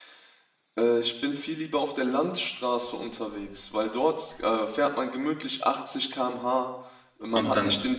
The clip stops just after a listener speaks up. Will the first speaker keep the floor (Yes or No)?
Yes